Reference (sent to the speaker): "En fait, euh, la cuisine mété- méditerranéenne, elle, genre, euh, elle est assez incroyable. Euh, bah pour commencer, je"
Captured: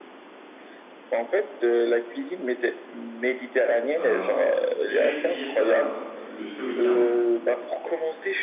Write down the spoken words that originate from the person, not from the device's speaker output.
Ben, je vais essayer ça le, ce week-end.

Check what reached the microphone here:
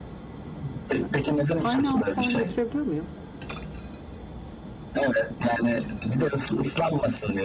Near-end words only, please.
Ha, ş- Tiny House falan götürebiliyor muyum?

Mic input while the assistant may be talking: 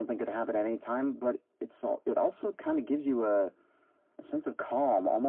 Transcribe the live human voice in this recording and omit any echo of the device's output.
none

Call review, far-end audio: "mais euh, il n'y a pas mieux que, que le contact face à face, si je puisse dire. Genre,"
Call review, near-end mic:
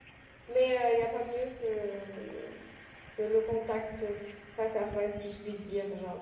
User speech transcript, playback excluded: none

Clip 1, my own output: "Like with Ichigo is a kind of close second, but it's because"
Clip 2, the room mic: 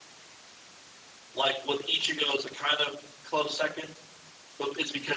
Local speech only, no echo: none

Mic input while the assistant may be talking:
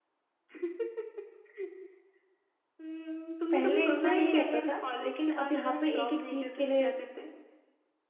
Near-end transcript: पहले इतना नहीं रहता था लेकिन अब यहाँ पे एक एक चीज के लिए

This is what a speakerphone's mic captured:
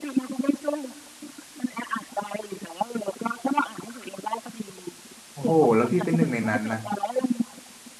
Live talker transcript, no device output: โอ้โหแล้วพี่เป็นหนึ่งในนั้นนะ

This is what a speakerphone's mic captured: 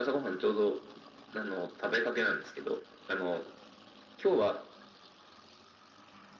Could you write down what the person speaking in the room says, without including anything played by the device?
none

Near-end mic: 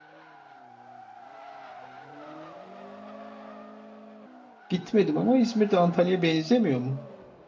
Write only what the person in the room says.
gitmedim ama İzmir'de Antalya'ya benzemiyor mu?

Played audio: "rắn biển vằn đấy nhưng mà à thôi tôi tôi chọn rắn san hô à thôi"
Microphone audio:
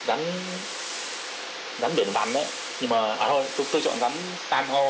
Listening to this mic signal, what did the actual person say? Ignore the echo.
none

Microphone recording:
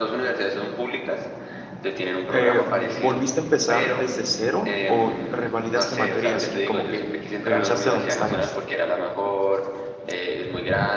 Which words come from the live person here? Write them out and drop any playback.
eh, volviste a empezar desde cero o revalidaste materias y como que regresaste a donde estabas?

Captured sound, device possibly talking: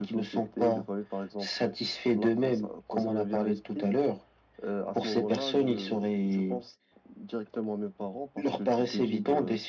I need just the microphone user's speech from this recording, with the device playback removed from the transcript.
none

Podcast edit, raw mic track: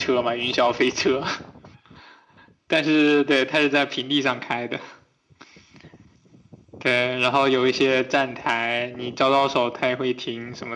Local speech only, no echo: none

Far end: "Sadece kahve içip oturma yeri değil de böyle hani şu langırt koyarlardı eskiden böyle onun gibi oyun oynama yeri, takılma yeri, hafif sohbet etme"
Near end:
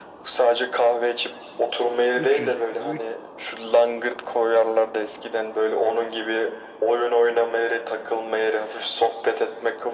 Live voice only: 300 3,

